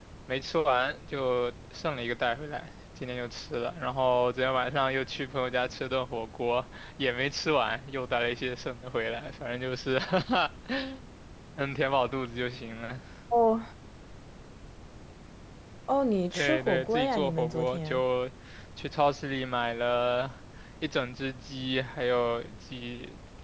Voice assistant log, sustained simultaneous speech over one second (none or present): present